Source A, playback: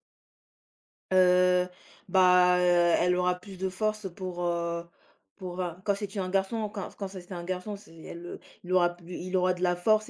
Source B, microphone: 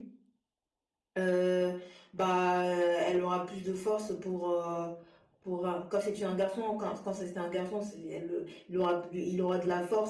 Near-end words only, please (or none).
none